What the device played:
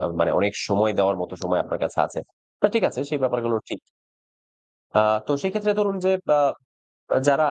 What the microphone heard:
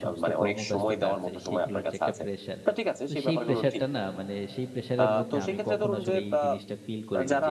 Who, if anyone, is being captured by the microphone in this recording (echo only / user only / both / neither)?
both